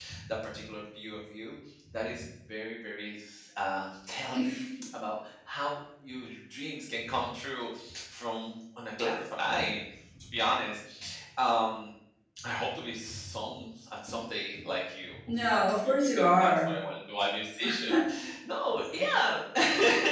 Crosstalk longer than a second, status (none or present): present